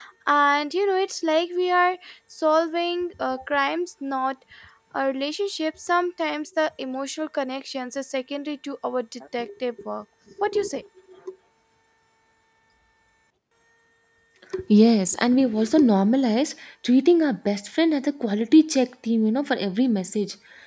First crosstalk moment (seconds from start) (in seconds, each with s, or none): none